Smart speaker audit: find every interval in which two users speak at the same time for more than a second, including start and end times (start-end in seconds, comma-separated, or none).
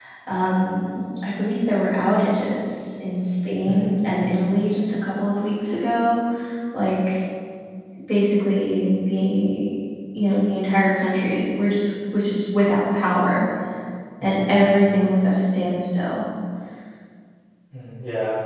none